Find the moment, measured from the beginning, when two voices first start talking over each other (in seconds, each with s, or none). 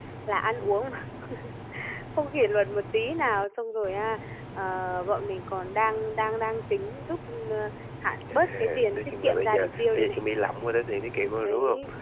8.3 s